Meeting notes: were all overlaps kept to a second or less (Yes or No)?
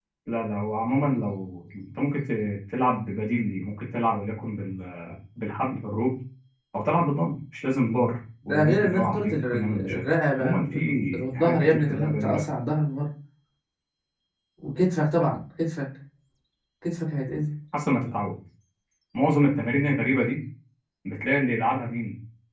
No